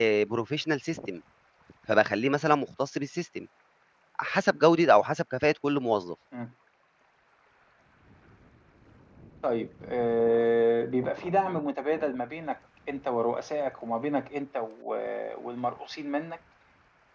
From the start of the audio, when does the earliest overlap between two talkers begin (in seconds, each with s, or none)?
none